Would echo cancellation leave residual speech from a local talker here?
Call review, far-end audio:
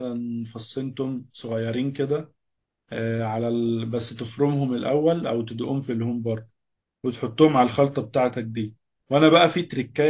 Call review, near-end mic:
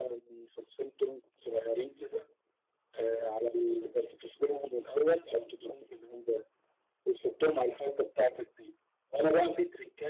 No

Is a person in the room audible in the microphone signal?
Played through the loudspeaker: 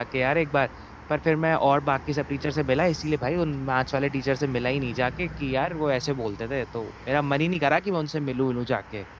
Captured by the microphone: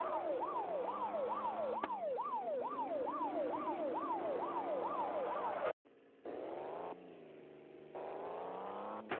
No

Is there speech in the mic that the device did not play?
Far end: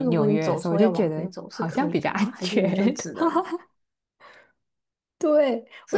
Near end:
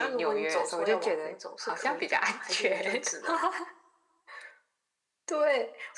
No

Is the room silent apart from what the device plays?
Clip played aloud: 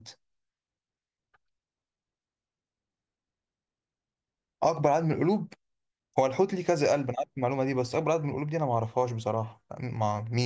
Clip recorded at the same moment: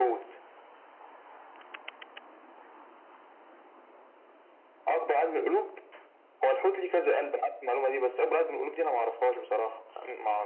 Yes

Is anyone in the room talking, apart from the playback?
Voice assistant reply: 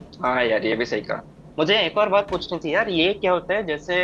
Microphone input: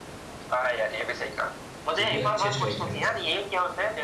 Yes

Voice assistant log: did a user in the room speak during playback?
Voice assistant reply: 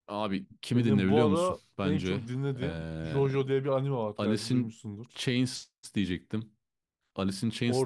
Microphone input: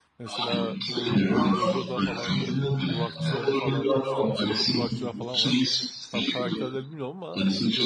Yes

